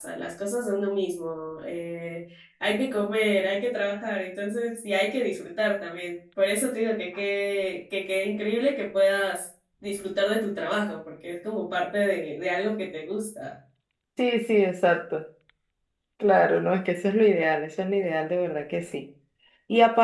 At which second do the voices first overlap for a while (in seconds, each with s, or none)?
none